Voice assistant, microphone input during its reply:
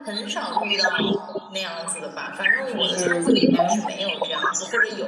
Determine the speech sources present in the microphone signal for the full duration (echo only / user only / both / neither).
both